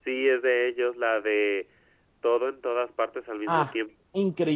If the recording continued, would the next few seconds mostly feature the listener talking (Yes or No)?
Yes